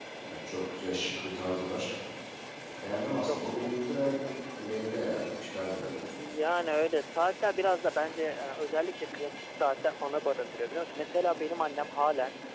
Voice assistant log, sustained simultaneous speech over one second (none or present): none